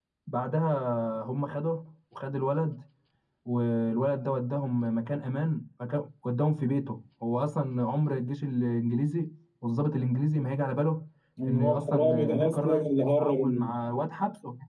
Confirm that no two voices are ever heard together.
No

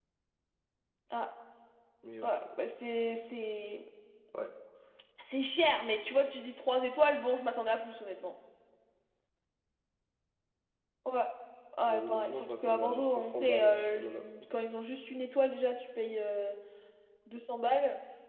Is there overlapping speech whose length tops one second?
Yes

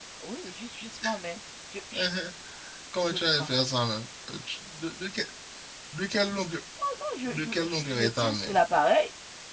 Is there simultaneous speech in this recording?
Yes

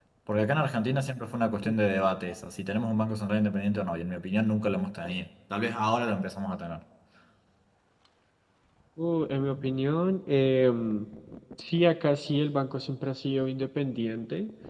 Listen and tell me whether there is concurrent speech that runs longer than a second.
No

